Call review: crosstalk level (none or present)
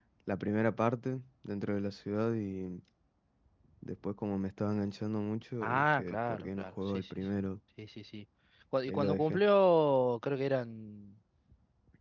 present